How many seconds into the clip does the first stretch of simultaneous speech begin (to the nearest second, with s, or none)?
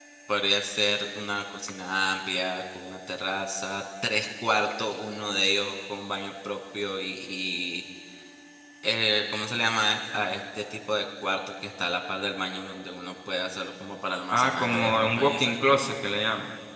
14 s